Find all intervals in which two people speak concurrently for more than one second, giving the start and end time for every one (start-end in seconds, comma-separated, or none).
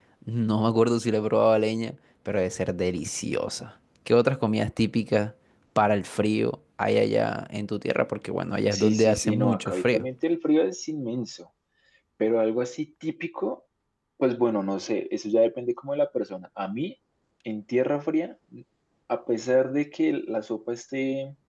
8.7-10.1